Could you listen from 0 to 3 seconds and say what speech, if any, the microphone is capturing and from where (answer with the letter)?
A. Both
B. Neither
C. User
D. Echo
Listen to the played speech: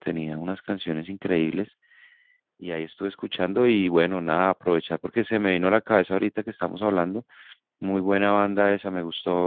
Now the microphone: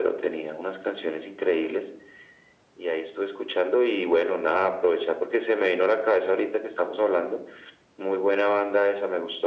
D